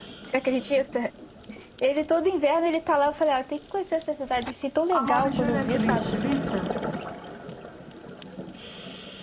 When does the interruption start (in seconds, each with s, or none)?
4.9 s